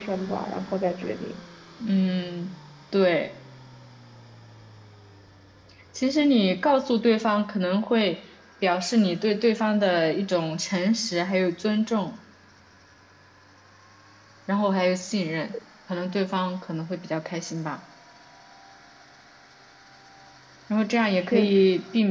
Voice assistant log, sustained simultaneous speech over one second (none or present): none